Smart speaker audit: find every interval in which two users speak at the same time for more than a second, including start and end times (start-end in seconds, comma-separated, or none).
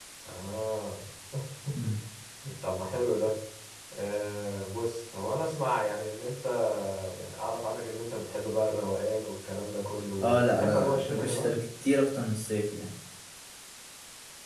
10.2-11.6